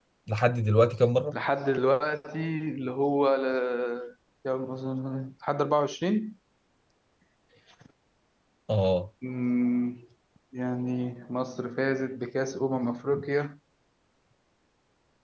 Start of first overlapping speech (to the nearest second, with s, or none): none